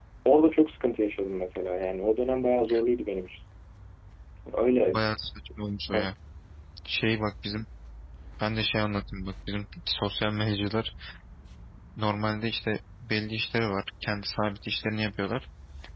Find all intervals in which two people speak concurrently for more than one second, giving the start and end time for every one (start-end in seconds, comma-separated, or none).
none